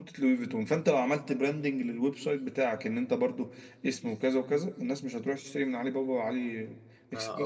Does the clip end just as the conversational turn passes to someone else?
Yes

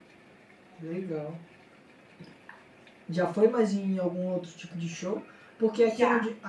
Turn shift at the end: No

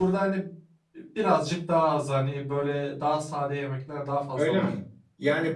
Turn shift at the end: Yes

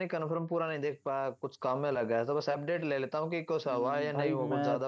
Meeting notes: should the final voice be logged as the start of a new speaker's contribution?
Yes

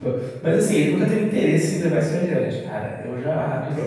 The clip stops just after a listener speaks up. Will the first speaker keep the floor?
Yes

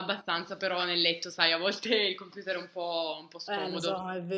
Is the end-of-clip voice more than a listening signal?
Yes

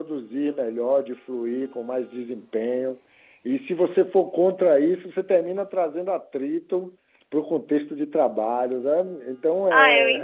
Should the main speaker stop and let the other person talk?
Yes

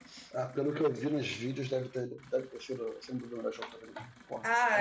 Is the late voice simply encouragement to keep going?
No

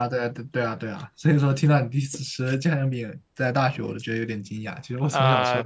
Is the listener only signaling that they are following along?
No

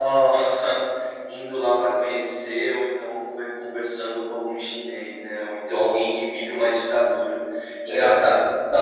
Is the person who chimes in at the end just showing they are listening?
Yes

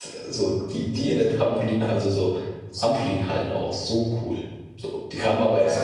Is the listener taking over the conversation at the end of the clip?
Yes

